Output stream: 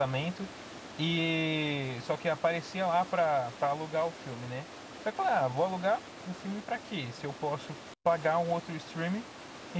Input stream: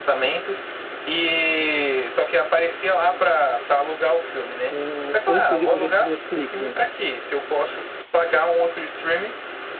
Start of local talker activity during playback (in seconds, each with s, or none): 4.7 s